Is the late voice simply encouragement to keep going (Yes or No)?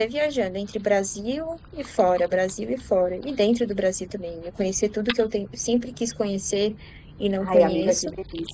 No